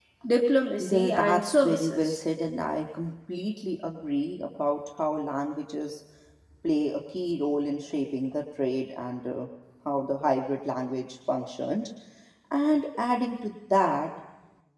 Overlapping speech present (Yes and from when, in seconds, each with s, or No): Yes, from 0.8 s